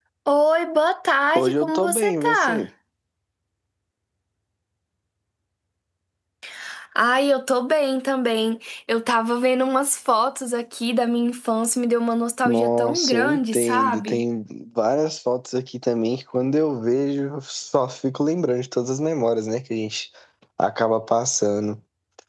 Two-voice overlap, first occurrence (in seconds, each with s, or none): 1.3 s